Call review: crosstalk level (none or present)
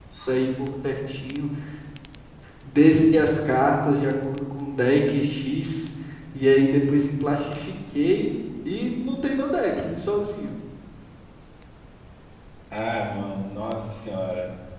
none